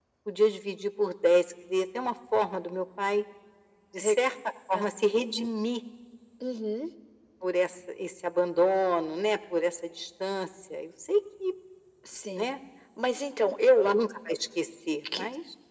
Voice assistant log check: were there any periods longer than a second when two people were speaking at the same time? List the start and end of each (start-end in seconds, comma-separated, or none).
none